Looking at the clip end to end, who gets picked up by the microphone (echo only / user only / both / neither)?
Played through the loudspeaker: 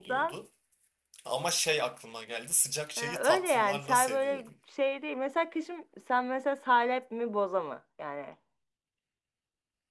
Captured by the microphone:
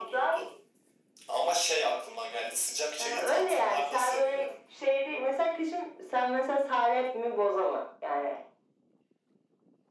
echo only